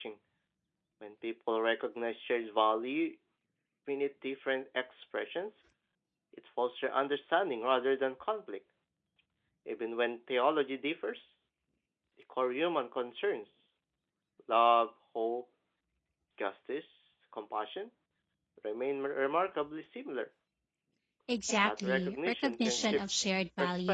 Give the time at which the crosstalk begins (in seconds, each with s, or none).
21.6 s